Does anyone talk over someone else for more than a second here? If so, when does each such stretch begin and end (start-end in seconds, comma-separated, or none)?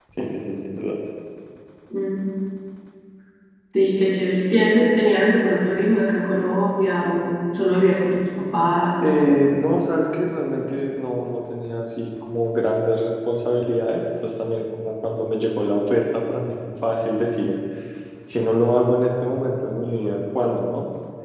none